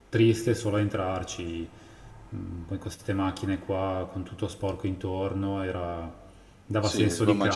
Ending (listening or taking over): taking over